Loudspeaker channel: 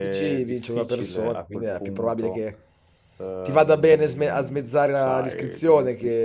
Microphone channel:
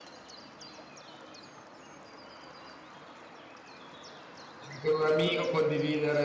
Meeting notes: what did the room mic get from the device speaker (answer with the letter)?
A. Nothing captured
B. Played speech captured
A